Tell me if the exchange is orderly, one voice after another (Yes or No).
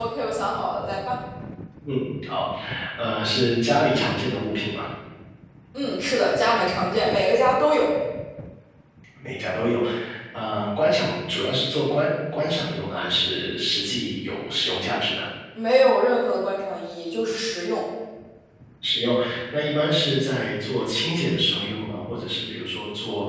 Yes